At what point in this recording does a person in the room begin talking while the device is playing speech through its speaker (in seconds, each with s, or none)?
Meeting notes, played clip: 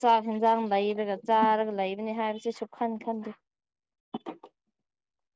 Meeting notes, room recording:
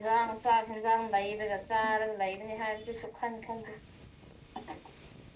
none